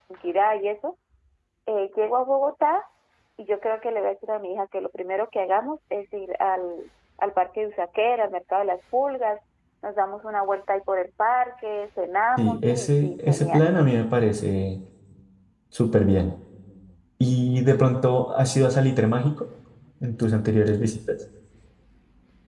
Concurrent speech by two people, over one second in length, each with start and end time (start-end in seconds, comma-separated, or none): 12.4-13.6